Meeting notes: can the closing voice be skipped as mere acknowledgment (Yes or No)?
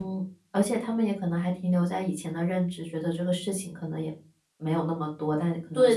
Yes